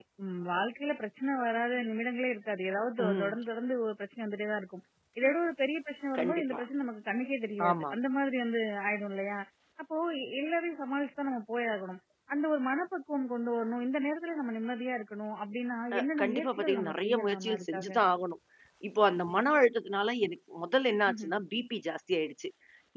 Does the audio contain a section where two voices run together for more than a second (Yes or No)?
Yes